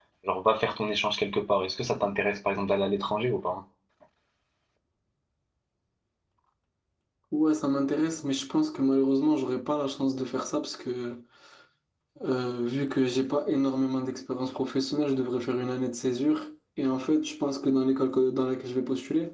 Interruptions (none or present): none